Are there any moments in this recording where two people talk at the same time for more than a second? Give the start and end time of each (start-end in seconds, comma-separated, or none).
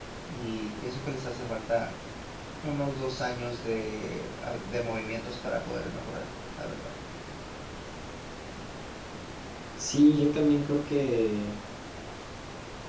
none